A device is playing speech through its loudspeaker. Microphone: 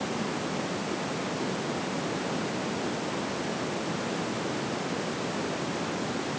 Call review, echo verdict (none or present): none